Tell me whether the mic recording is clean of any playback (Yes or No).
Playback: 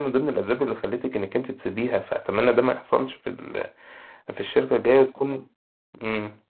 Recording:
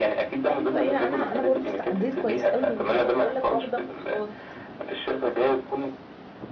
No